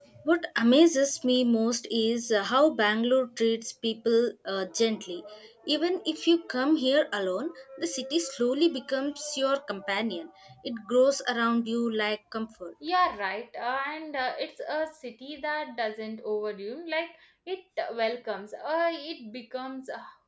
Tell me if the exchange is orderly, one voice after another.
Yes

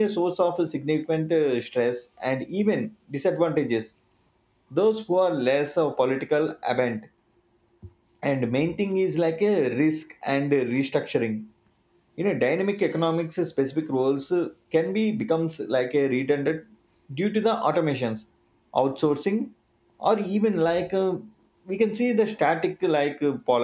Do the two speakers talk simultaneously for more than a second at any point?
No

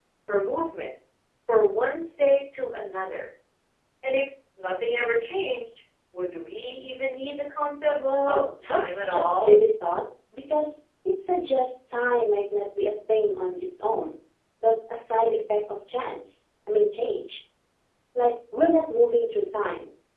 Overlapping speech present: Yes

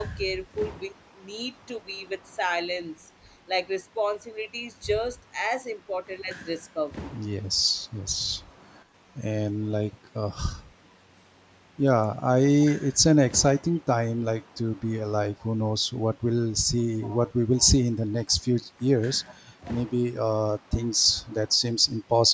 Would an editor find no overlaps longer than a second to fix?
Yes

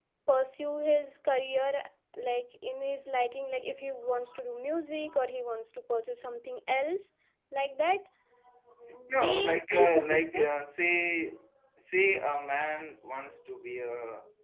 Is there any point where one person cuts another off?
Yes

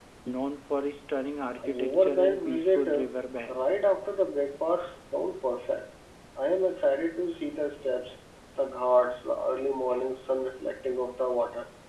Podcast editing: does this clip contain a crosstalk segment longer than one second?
Yes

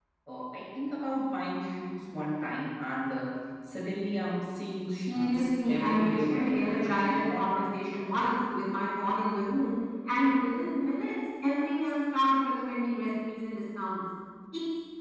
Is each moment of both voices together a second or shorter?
No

